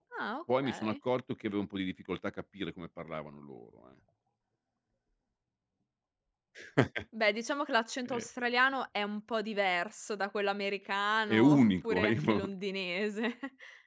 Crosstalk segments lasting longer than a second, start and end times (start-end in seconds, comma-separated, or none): 11.3-12.5